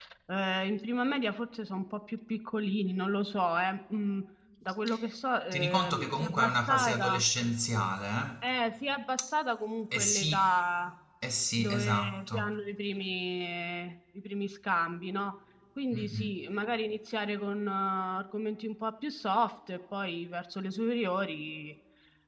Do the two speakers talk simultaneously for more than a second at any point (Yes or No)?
Yes